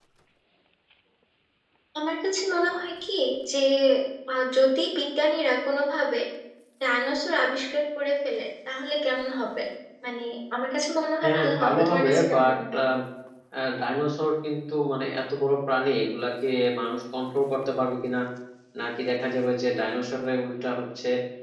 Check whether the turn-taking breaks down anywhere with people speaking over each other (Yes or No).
Yes